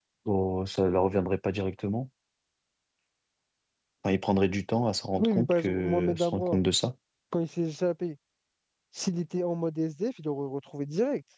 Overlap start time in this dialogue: 5 s

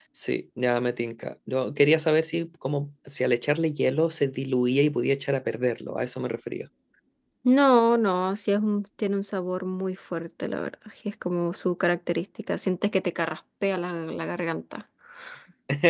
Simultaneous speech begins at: none

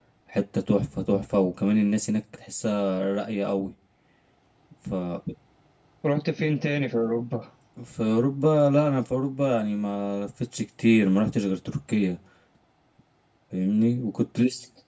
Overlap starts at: none

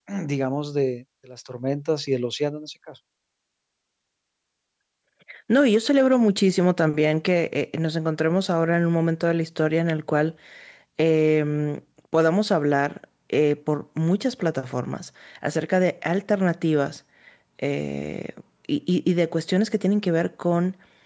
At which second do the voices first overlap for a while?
none

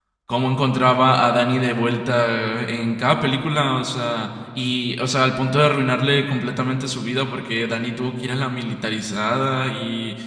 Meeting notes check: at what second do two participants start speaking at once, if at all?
none

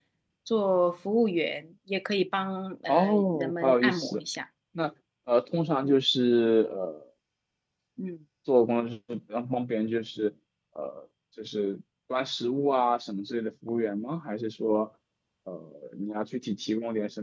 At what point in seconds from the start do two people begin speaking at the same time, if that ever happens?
3 s

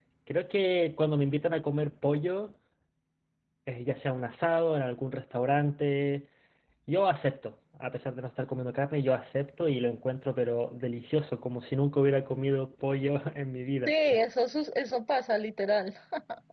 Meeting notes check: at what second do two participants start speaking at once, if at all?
none

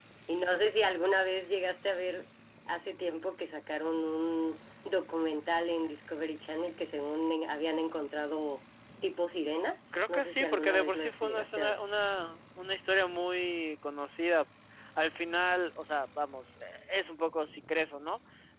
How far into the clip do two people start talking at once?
10 s

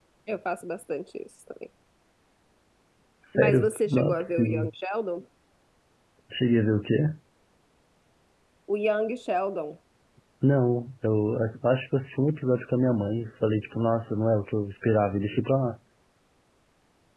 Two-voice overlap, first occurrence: 3 s

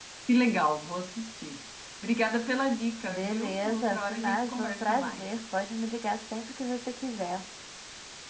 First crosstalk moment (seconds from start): 3 s

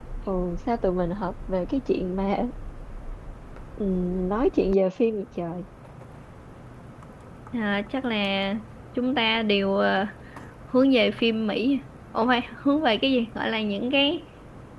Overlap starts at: none

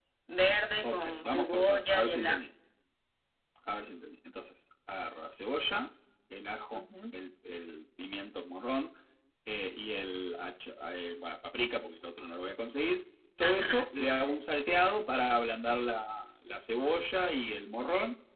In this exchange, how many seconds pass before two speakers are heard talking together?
1 s

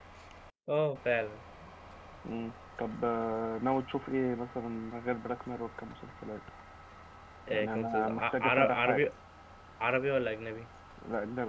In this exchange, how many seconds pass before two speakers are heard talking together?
8 s

